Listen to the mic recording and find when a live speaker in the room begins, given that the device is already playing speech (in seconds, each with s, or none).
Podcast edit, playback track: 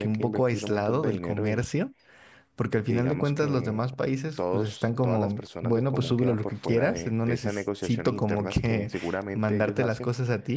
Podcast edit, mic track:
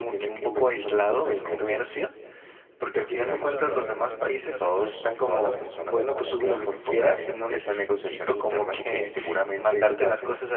3.1 s